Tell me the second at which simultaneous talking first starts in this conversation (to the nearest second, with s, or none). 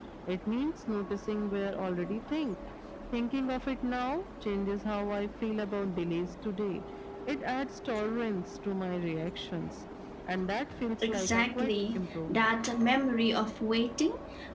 11 s